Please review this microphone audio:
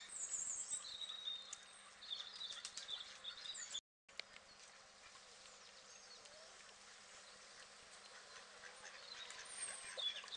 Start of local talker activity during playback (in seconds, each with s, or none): none